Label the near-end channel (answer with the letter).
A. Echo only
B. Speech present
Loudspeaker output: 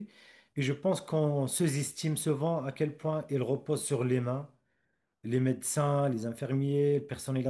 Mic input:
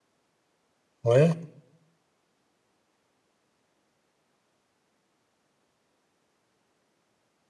B